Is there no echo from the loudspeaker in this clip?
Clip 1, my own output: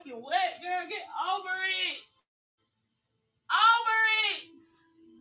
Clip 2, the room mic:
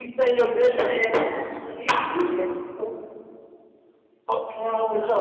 Yes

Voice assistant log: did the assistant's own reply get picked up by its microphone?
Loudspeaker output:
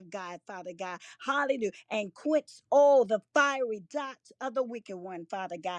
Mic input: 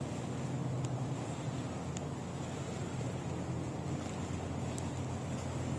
No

